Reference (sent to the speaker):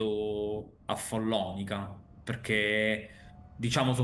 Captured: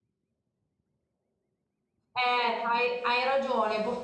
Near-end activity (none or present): present